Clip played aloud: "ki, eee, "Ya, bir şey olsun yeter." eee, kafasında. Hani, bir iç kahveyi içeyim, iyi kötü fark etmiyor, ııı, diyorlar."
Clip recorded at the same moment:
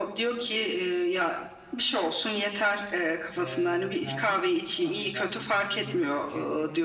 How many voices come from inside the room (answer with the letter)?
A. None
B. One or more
B